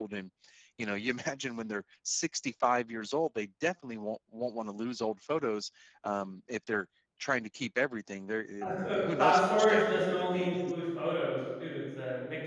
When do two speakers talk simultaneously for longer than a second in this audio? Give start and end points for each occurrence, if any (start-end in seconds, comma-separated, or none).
8.6-10.6